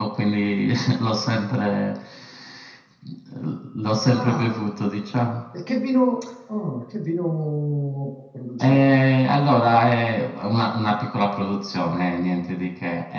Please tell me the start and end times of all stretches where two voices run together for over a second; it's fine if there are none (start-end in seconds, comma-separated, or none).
none